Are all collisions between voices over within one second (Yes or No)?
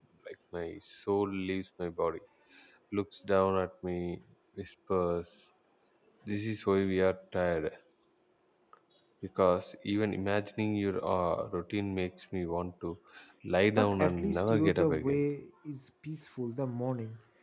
No